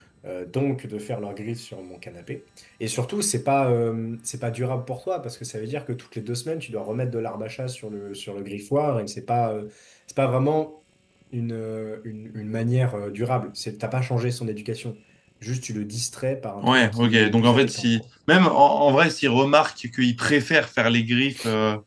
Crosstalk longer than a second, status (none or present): present